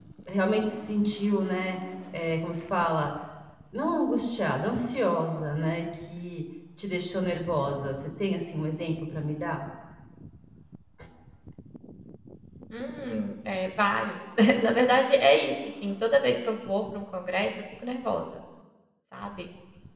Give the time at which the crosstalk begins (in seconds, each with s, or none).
none